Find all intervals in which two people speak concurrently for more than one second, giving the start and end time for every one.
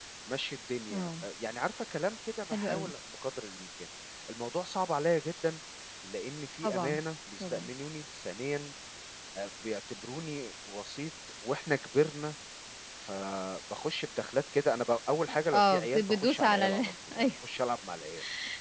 15.5-17.3

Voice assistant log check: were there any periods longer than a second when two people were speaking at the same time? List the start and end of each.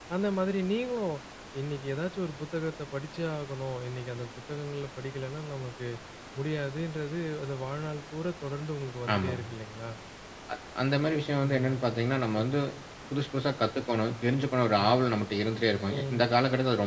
none

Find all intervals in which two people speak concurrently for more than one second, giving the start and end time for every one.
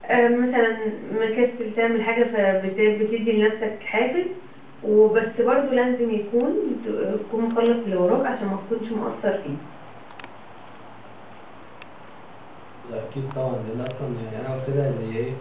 none

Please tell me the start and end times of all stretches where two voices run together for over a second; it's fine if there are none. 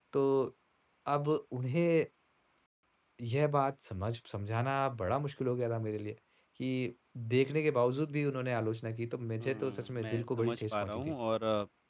9.4-11.2

